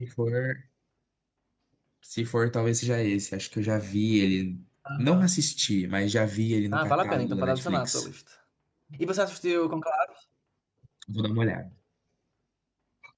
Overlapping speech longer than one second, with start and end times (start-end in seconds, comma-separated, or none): 6.7-8.1